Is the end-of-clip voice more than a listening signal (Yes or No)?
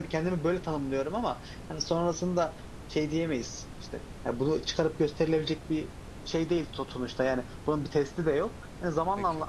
No